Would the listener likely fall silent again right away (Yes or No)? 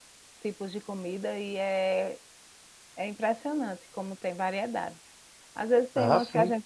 Yes